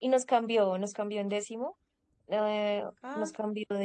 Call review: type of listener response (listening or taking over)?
listening